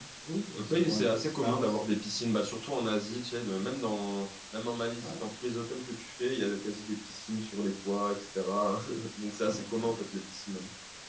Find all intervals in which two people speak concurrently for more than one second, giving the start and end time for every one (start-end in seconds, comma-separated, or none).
0.6-1.8